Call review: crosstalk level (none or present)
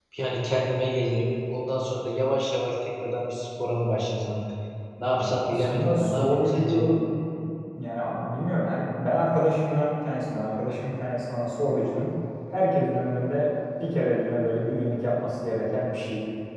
present